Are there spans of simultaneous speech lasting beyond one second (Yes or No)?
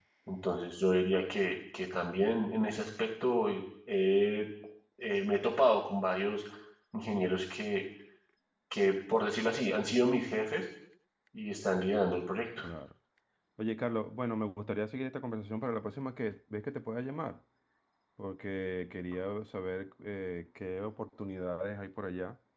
No